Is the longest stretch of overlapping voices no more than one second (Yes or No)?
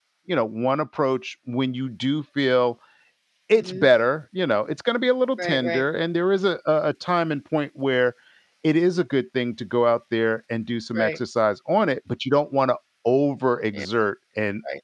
Yes